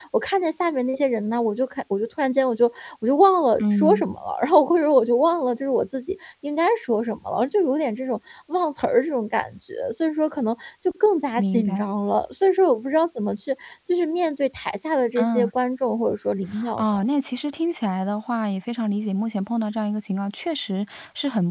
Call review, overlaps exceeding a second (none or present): none